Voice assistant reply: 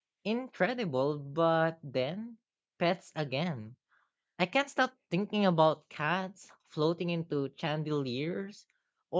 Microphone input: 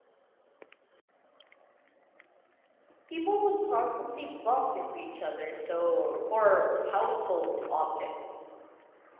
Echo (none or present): none